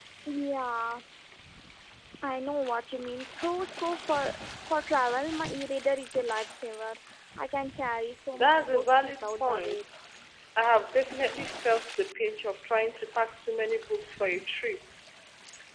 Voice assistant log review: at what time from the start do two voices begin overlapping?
8 s

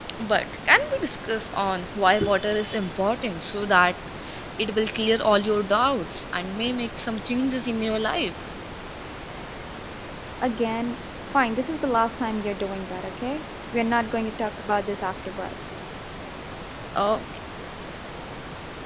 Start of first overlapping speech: none

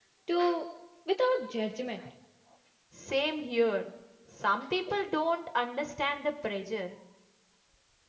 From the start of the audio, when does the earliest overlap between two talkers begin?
none

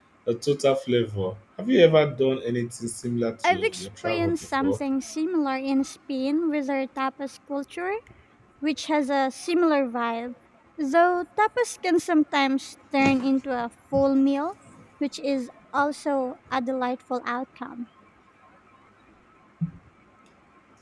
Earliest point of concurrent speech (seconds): 3 s

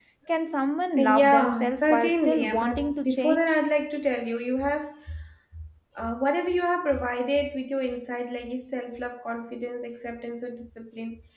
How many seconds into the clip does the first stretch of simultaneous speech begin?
1 s

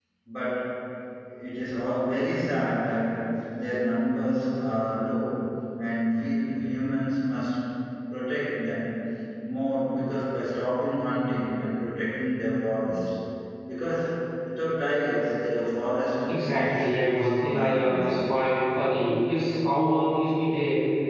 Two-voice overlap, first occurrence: 16 s

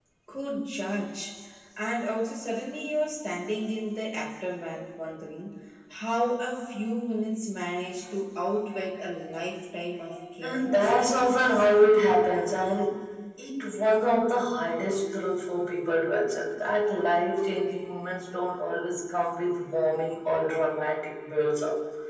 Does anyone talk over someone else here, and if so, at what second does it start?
10 s

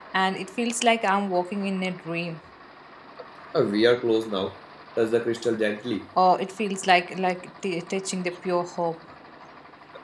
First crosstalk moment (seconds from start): none

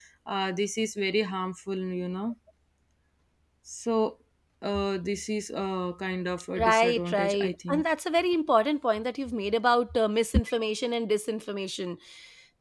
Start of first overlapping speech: 7 s

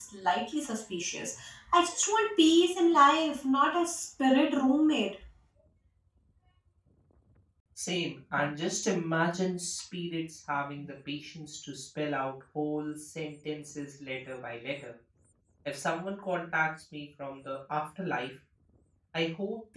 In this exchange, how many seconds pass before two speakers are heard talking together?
none

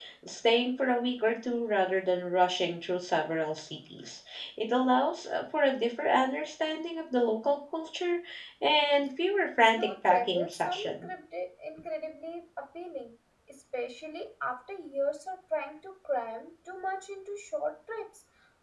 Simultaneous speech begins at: 10 s

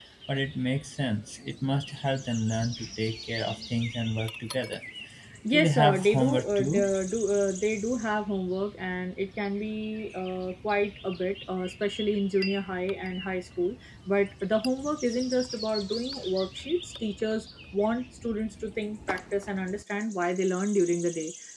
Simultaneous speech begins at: 6 s

